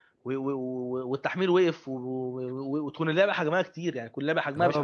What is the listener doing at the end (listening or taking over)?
taking over